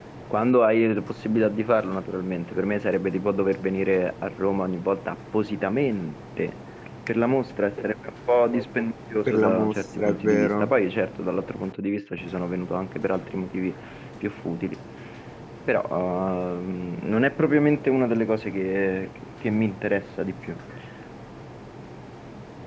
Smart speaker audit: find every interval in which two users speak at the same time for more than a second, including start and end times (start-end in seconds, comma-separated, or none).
9.3-10.7